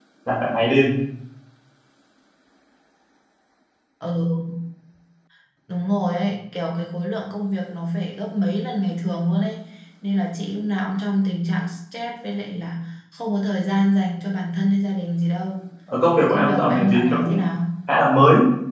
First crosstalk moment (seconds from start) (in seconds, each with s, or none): 16.2 s